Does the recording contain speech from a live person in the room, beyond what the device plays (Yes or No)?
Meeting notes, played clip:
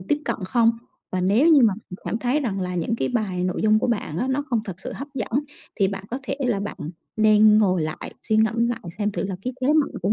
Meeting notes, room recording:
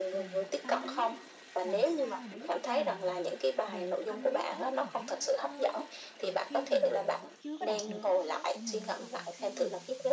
Yes